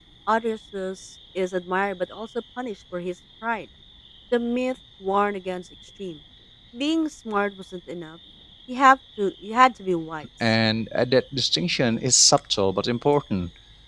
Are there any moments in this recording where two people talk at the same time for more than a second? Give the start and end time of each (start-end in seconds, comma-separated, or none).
none